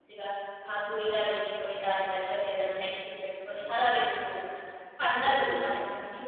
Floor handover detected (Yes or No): No